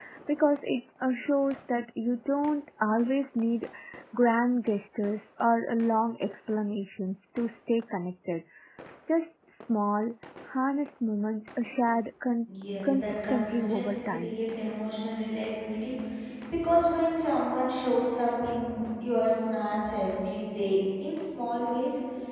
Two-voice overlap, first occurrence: 13 s

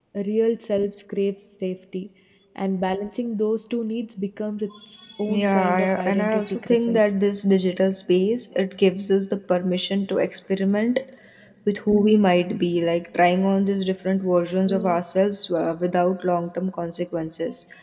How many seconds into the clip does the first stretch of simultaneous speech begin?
5 s

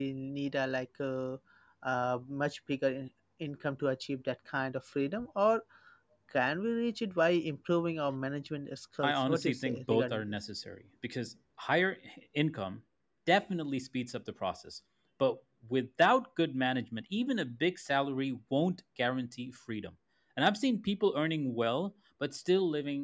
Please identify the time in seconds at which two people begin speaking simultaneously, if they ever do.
9 s

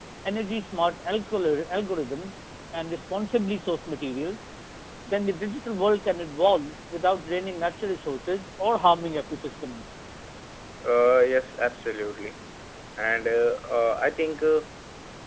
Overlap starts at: none

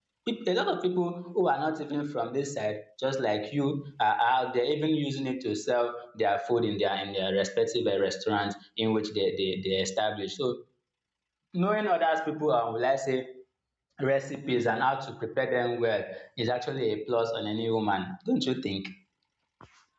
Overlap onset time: none

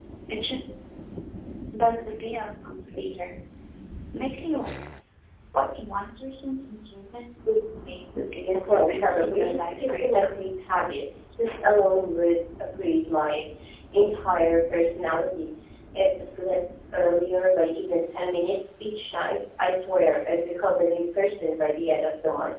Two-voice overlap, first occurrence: 9 s

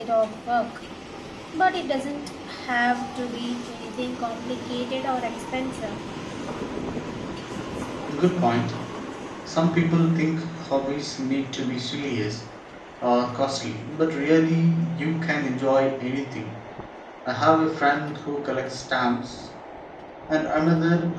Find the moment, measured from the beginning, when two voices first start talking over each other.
none

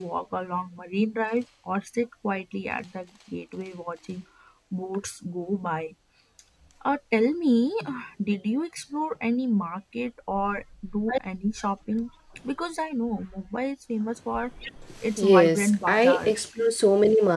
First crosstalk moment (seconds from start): 15 s

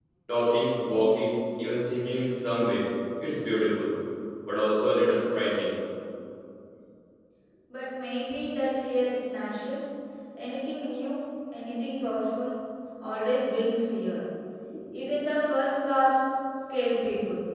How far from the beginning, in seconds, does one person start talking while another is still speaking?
none

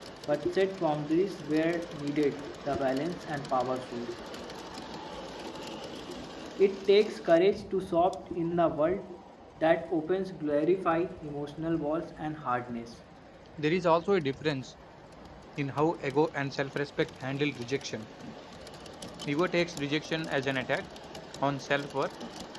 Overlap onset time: none

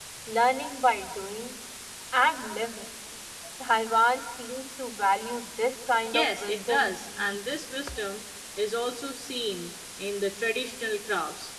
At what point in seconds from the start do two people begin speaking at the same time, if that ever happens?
6 s

